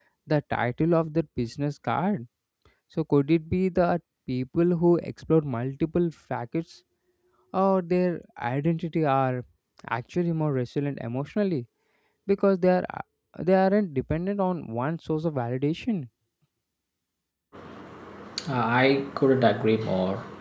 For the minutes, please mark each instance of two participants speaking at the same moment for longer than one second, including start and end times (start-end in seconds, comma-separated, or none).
none